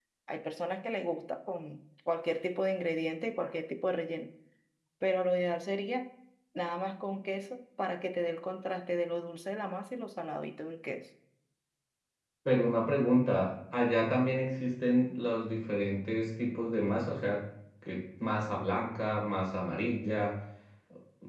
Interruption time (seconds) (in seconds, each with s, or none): none